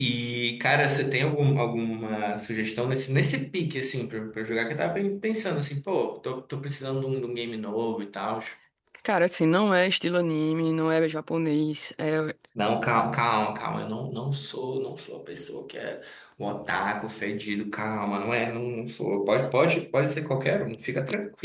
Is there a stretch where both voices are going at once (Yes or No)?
No